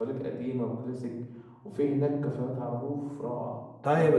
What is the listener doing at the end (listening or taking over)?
taking over